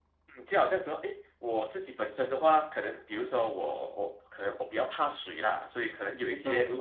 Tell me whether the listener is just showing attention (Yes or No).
Yes